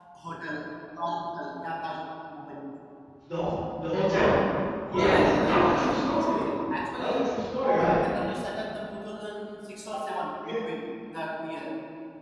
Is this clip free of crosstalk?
No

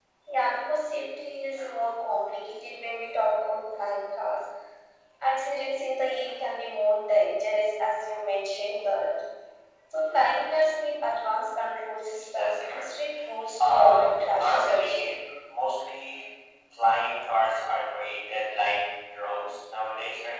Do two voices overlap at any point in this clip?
Yes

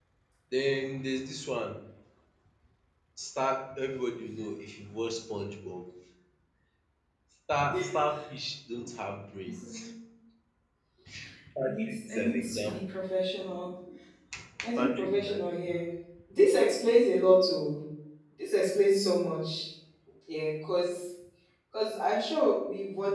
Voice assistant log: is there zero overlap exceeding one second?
No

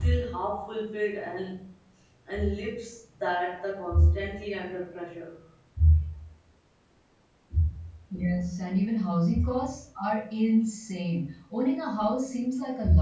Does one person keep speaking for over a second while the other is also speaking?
No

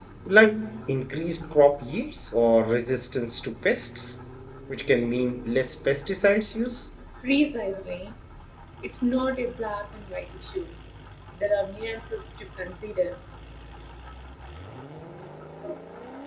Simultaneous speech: No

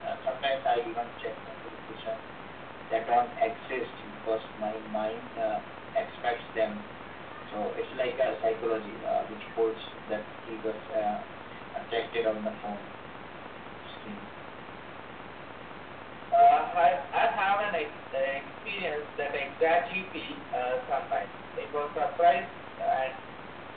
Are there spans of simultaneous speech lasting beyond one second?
No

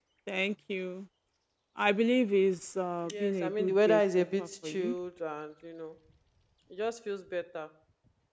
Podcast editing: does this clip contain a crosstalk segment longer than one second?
Yes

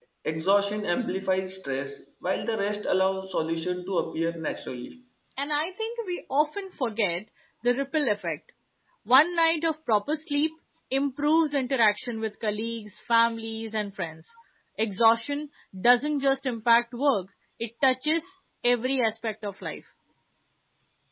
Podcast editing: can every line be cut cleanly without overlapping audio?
Yes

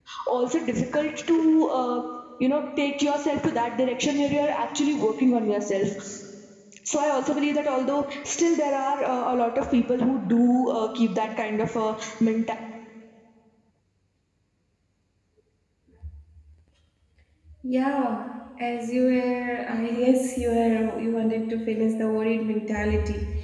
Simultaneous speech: No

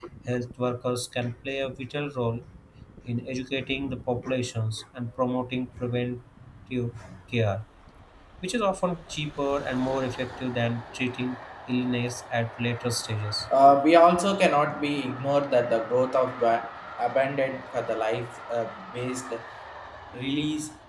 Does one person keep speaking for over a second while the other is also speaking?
No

